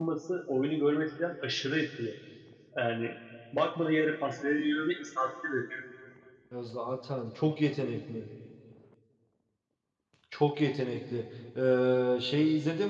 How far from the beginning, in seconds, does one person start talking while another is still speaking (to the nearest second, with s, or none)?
none